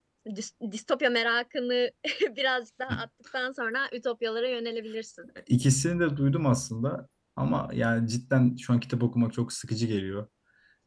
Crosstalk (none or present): none